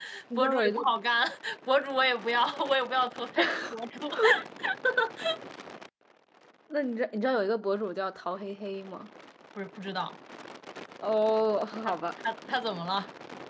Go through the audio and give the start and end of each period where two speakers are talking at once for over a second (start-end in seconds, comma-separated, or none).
none